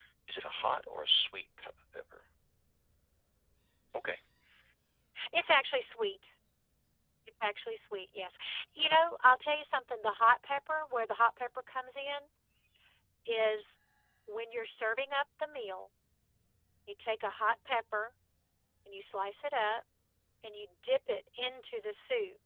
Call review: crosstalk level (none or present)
none